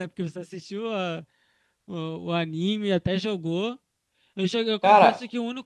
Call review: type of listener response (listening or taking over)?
listening